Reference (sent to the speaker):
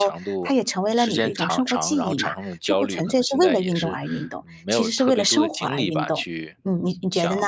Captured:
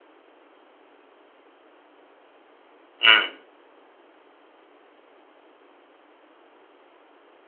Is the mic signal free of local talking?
No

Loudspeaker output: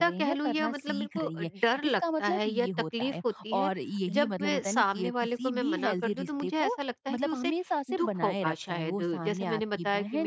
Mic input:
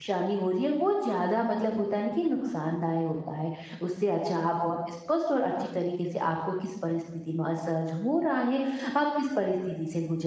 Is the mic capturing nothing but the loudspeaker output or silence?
No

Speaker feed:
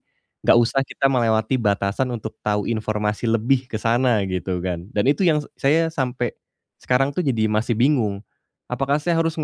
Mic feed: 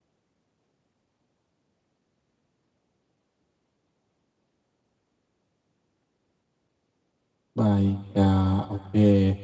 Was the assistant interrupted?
Yes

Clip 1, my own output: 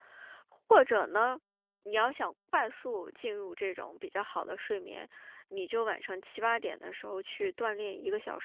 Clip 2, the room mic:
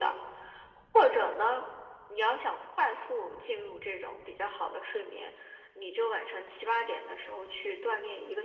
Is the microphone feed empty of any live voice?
Yes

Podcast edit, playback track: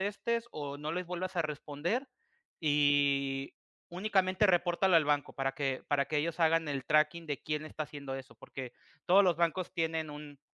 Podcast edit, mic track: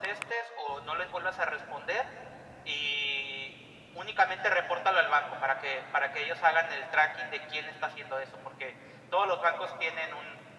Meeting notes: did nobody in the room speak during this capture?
Yes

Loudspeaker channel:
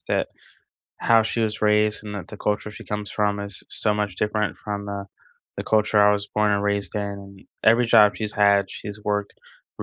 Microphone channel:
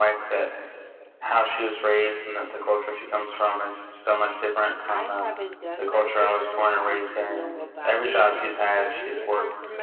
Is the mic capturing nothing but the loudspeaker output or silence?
No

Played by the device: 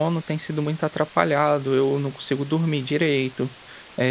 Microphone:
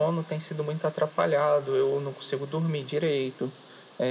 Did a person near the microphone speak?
No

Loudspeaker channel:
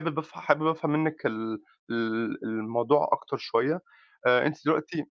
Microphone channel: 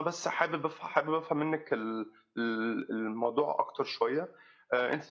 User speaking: No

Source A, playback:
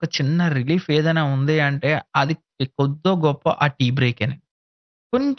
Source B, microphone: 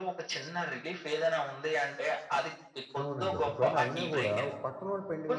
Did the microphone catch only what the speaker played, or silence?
No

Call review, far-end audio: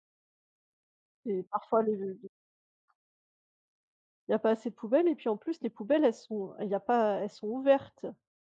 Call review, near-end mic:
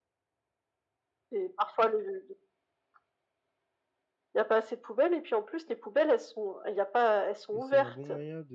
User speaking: Yes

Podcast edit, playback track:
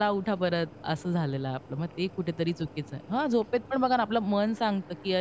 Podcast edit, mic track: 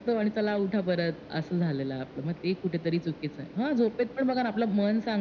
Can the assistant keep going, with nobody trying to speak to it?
Yes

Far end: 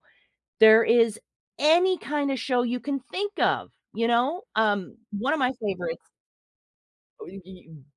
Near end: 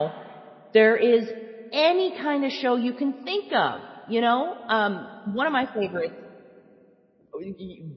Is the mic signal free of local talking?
Yes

